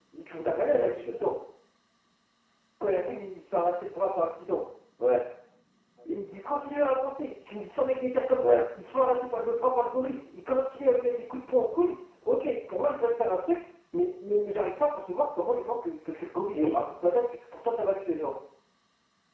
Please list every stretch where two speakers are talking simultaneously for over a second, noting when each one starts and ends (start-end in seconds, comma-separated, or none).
none